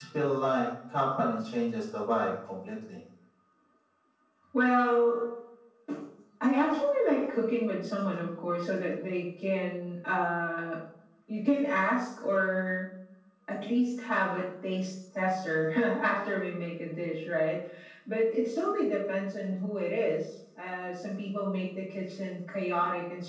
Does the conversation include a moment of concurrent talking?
No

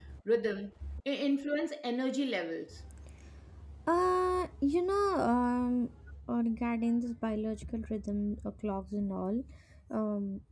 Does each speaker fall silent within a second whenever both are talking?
Yes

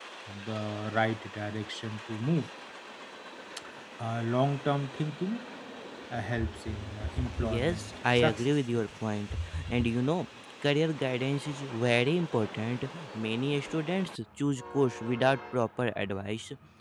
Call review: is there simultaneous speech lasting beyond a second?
Yes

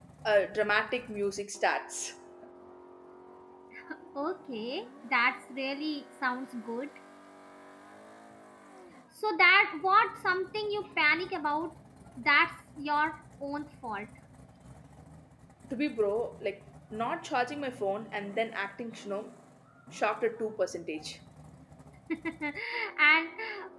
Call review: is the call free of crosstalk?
Yes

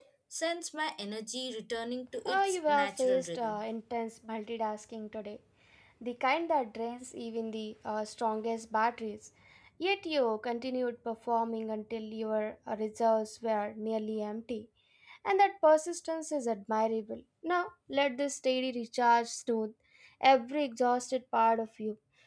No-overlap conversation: No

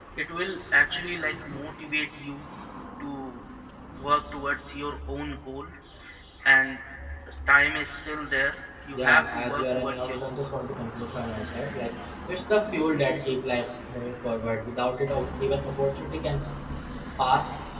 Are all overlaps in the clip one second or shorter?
No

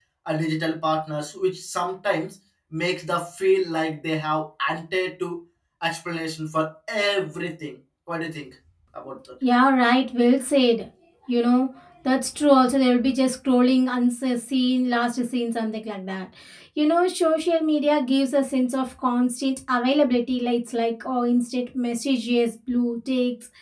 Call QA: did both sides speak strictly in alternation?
Yes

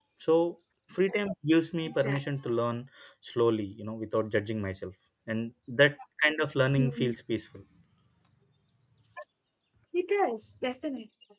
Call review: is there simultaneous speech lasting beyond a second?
No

